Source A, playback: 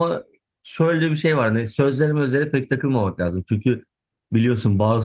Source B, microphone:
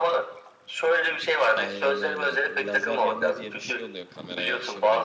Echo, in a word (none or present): present